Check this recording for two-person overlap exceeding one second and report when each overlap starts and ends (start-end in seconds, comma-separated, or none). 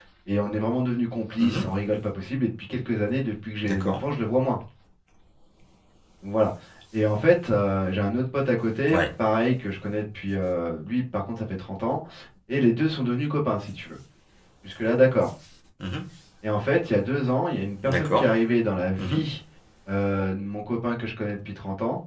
none